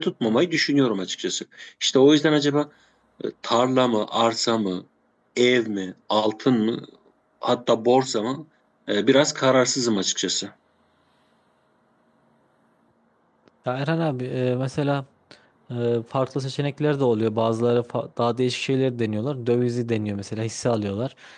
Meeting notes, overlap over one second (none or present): none